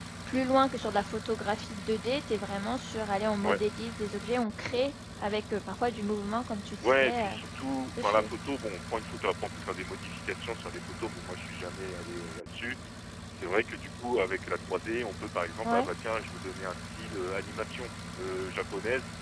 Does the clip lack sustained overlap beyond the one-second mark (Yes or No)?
Yes